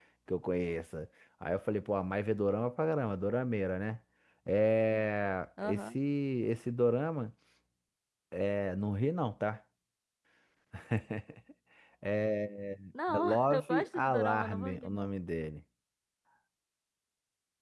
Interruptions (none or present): present